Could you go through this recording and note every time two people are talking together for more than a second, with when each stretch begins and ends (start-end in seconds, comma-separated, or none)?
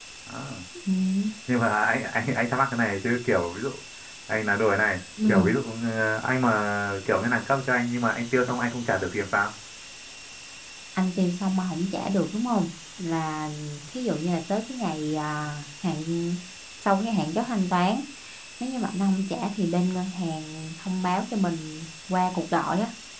none